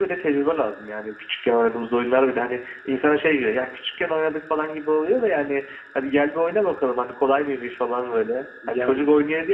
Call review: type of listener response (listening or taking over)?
listening